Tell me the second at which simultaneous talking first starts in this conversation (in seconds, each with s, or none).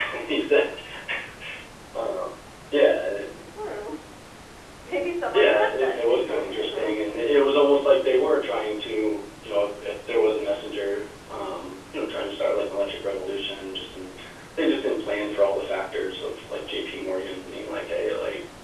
5.3 s